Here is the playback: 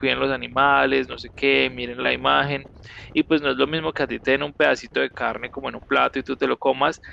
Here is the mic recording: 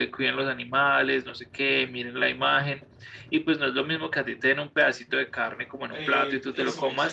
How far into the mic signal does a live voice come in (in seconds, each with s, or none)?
5.9 s